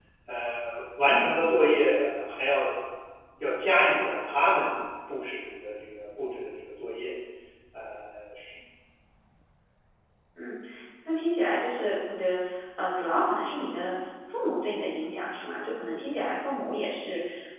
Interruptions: none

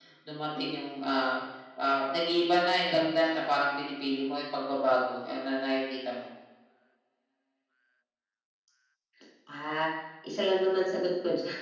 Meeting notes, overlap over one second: none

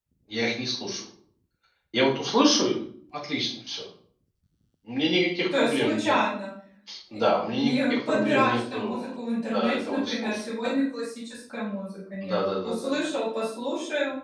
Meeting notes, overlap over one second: present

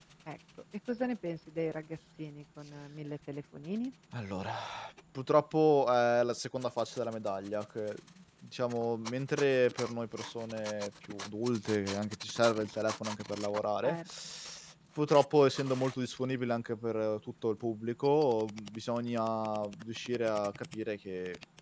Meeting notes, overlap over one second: none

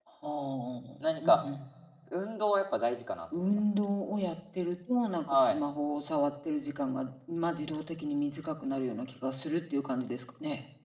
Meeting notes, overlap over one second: none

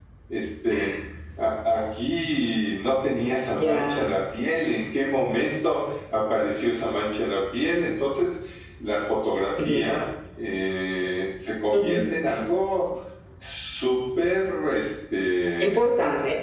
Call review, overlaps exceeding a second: none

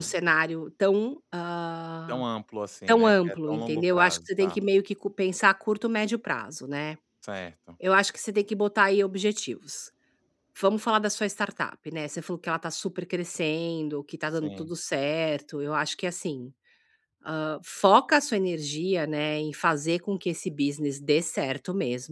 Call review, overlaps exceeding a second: present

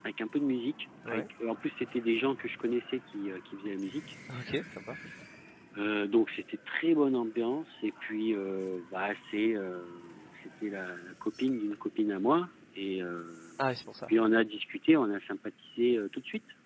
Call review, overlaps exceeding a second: none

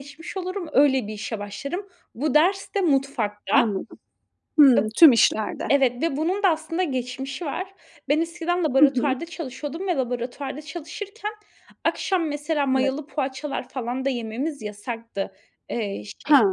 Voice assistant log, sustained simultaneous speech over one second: none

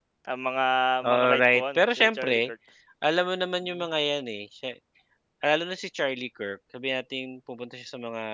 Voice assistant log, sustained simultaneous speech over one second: present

